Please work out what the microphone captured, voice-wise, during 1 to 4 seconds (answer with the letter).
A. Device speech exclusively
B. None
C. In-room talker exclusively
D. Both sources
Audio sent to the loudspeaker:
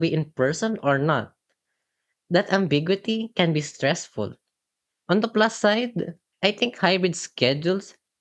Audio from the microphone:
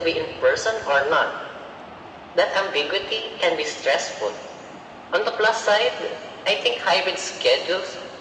A